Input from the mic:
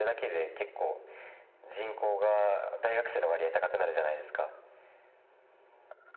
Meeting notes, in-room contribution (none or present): none